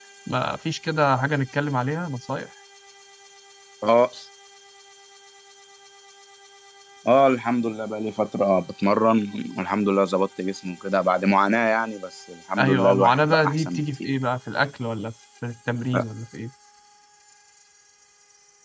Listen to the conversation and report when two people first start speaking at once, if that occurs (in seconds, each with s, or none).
12.6 s